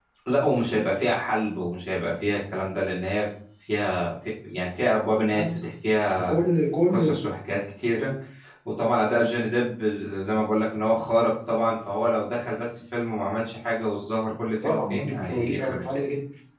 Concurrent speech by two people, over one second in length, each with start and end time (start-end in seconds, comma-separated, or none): 14.6-16.0